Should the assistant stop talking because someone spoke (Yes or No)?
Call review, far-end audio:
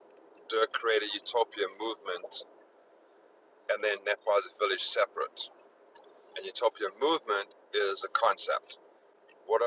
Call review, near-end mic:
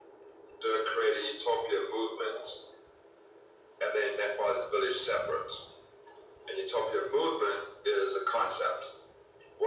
No